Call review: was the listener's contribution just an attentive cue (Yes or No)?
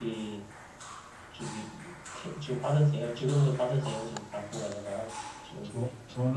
No